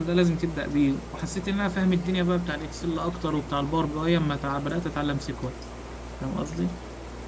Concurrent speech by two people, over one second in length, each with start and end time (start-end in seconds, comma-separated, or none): none